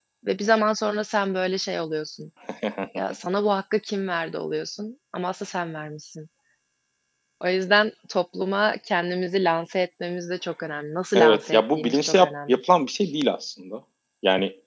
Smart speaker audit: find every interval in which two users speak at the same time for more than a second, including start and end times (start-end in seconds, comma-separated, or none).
11.2-12.6